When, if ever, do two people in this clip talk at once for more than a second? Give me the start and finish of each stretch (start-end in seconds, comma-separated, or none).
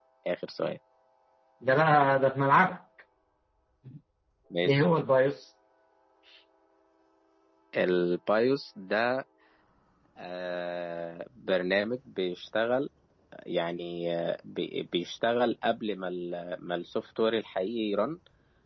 none